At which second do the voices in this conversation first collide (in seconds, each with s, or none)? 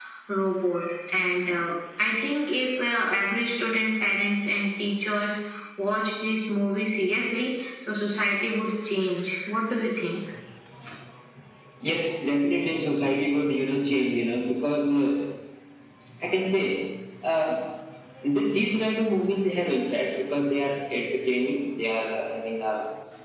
none